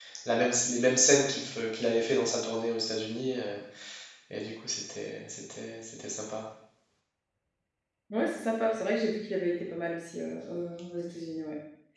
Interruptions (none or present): none